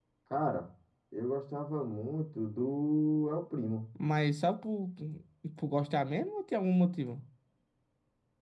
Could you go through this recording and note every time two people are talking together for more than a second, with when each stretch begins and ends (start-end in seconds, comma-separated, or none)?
none